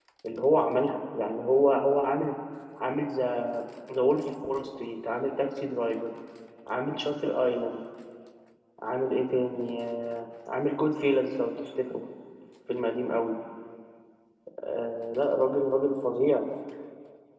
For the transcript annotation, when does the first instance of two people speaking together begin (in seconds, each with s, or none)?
none